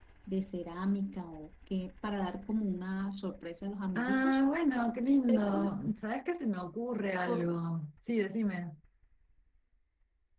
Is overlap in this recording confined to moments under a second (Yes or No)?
Yes